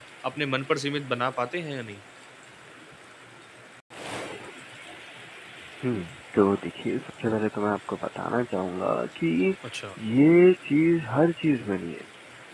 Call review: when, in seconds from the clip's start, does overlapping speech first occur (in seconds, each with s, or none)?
none